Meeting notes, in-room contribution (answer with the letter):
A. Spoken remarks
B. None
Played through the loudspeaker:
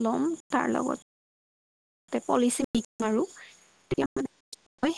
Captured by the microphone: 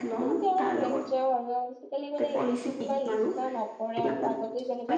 A